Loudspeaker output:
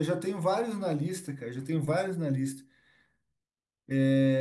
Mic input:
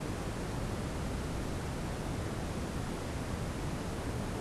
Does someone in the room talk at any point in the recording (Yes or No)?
No